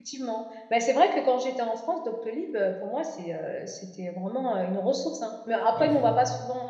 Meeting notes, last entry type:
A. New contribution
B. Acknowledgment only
B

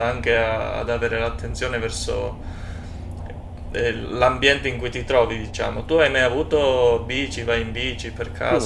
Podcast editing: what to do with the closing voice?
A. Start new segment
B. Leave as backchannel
A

